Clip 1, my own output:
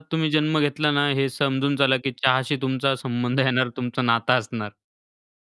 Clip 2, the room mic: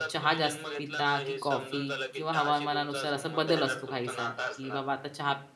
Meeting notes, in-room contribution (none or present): present